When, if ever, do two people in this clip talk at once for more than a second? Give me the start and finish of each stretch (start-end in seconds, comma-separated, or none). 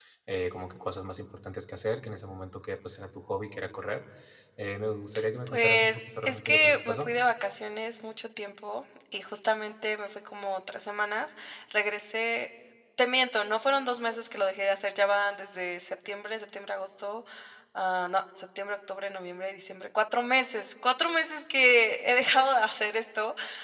5.5-7.1